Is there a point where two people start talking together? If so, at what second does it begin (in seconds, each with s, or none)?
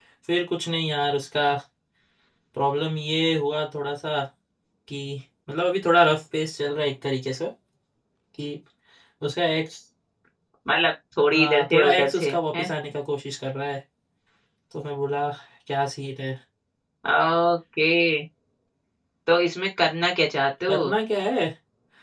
11.3 s